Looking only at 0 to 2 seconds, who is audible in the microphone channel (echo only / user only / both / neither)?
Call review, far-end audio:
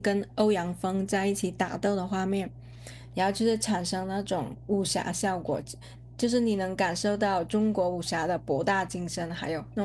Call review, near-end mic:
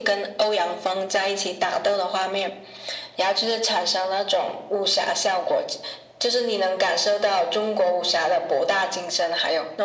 echo only